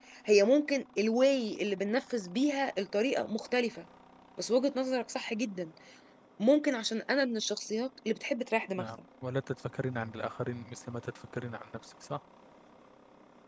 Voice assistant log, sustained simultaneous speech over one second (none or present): none